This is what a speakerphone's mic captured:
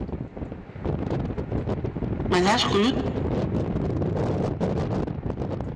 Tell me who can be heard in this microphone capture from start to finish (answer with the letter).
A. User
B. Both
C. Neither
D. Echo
A